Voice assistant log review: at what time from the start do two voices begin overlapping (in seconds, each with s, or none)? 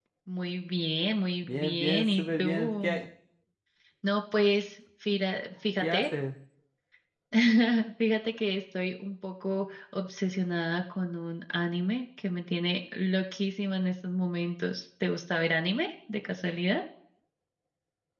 1.4 s